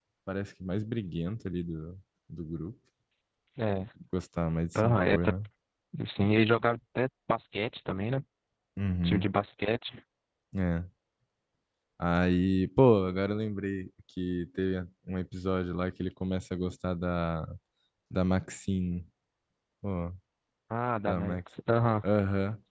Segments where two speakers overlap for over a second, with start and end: none

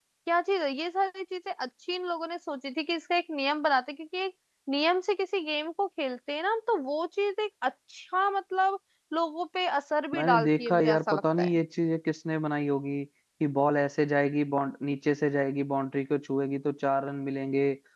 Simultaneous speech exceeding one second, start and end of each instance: 10.2-11.6

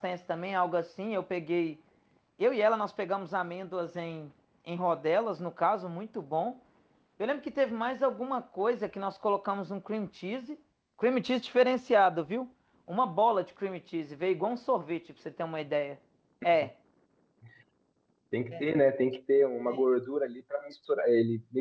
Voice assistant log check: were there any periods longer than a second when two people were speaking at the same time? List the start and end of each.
none

